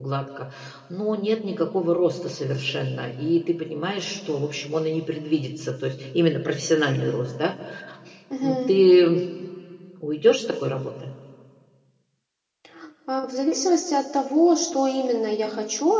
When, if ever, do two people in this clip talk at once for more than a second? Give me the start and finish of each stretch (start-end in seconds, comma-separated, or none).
none